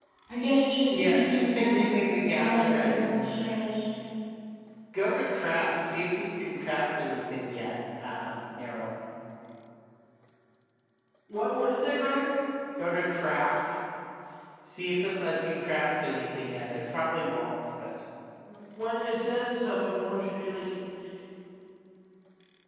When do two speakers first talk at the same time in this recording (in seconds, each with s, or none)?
0.9 s